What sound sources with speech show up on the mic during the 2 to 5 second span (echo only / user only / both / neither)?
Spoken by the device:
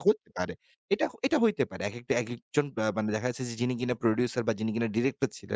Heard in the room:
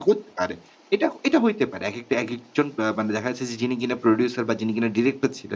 echo only